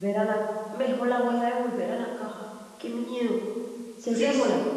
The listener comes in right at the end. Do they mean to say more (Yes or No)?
Yes